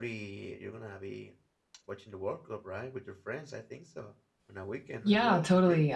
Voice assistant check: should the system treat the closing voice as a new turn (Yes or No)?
Yes